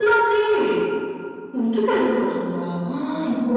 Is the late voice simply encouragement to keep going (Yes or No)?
Yes